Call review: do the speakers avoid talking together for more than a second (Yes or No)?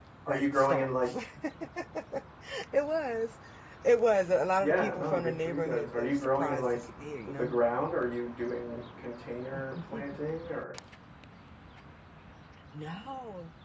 No